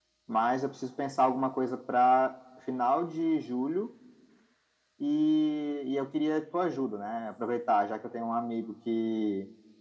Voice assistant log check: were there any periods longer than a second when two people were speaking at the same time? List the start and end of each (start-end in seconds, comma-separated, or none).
none